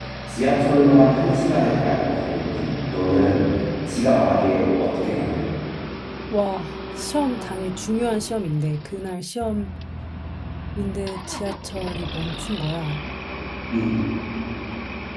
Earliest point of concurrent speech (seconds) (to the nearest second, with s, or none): none